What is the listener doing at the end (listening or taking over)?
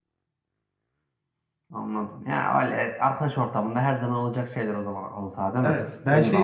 taking over